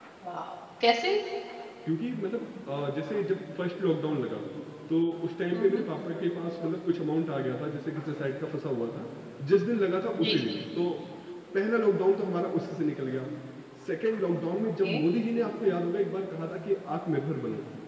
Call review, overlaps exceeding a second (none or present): none